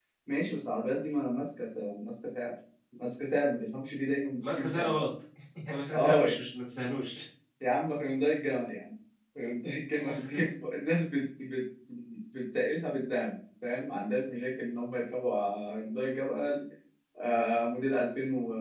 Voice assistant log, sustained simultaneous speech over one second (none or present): none